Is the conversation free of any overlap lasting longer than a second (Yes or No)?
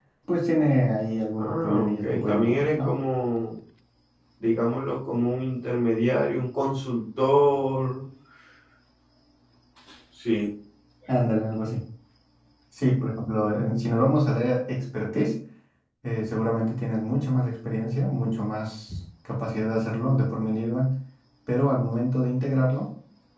No